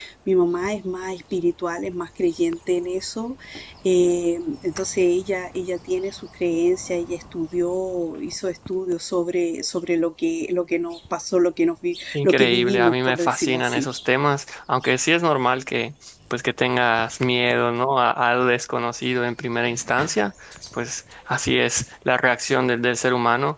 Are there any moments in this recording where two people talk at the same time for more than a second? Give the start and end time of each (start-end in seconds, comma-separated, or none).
12.1-13.9